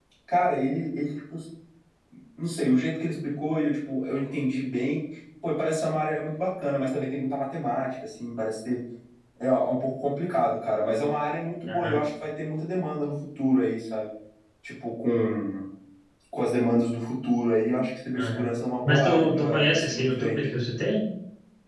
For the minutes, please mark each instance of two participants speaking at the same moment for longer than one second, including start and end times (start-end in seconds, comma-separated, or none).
18.9-20.5